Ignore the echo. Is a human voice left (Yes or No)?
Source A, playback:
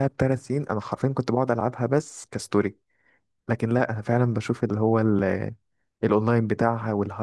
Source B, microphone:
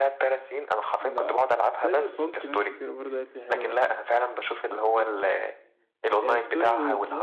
Yes